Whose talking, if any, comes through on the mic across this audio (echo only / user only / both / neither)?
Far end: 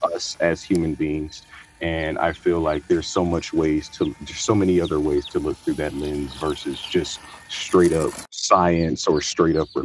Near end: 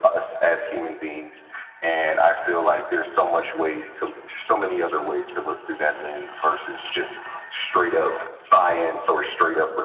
echo only